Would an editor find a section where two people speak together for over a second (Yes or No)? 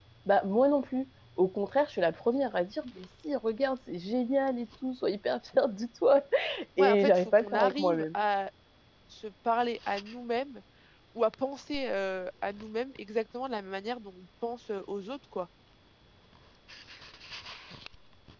Yes